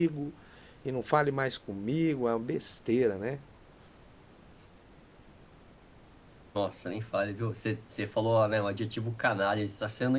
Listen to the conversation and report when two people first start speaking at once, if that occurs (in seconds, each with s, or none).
none